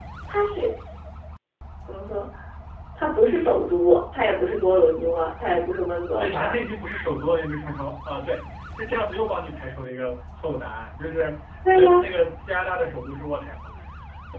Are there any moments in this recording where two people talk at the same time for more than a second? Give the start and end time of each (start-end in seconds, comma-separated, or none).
none